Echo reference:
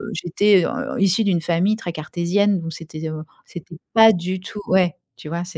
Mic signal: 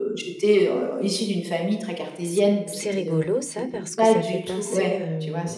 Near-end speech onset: 2.2 s

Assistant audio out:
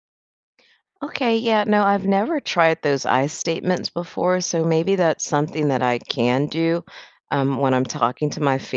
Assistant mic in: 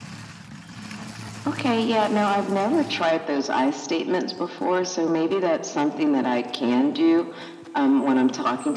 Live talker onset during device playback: none

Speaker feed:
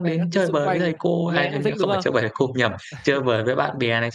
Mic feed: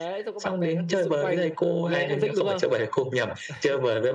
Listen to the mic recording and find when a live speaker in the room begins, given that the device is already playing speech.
none

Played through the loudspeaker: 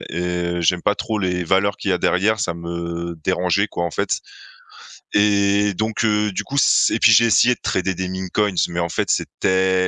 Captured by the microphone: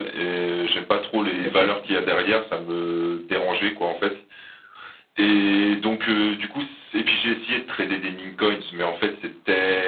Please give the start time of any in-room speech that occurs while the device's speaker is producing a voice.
1.3 s

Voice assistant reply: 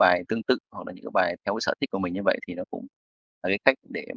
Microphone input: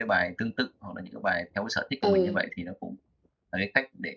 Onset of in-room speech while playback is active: 2.0 s

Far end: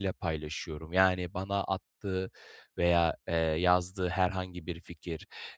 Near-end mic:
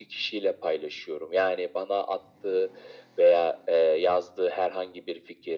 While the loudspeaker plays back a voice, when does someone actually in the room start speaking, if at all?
none

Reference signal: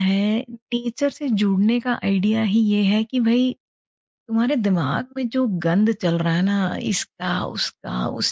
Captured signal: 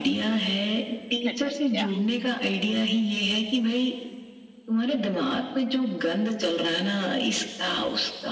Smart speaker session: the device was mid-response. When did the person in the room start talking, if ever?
1.2 s

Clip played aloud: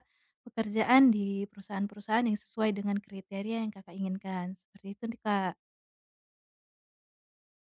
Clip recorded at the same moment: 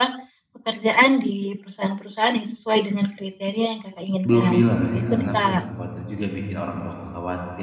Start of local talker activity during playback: 4.3 s

